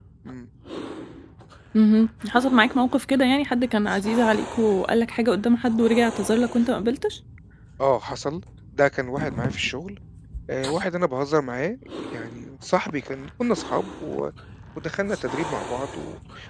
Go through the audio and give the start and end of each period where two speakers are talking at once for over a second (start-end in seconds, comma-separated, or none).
none